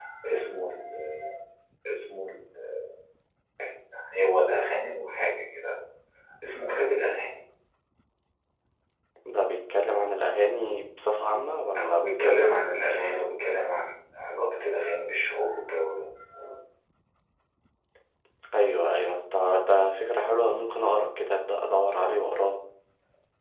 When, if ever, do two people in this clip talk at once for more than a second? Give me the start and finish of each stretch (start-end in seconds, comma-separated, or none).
11.8-13.3